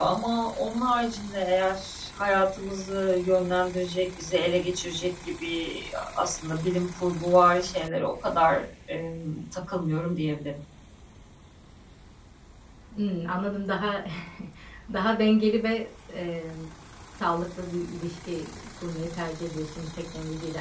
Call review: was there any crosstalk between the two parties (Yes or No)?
No